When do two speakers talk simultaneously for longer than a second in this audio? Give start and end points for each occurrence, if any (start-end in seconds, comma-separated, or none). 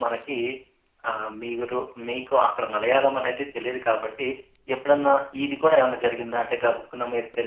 none